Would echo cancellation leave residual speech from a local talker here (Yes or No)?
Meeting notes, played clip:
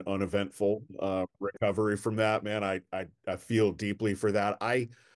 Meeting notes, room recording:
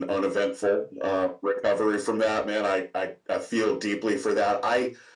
No